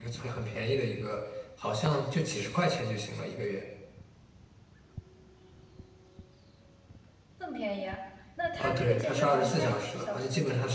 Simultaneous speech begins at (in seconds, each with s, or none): 8.6 s